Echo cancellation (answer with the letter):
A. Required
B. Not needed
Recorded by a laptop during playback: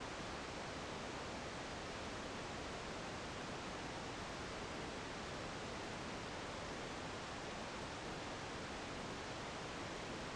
B